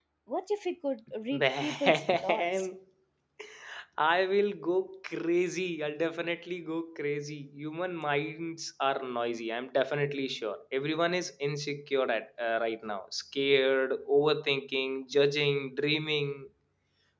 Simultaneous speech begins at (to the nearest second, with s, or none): 1 s